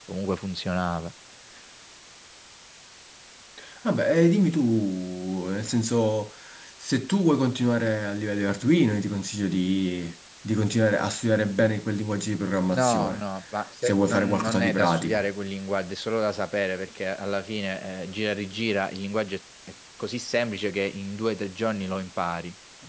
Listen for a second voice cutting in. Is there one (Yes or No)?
Yes